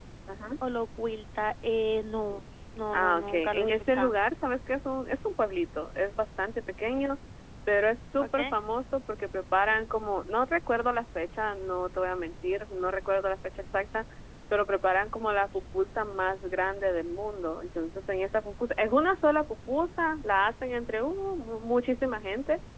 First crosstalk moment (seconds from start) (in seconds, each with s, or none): 2.9 s